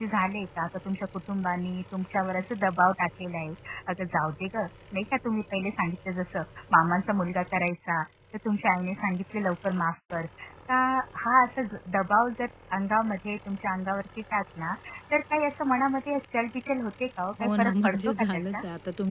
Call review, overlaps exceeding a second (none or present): present